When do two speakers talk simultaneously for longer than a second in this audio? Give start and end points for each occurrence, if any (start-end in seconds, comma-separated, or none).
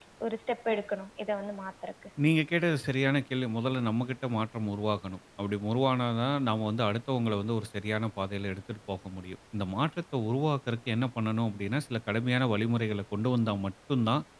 none